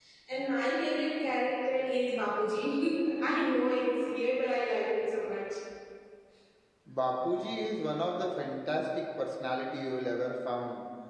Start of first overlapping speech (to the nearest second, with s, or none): none